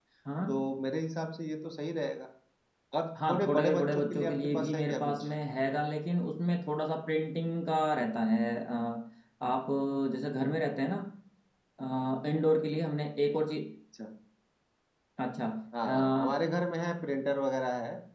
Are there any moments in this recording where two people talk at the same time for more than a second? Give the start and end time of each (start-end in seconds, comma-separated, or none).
3.2-5.3